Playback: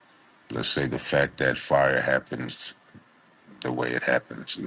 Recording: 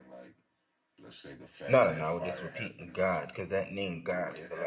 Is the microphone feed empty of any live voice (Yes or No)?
No